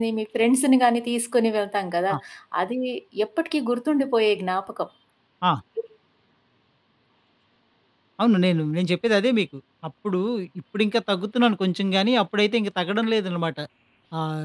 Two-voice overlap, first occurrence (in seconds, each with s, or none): none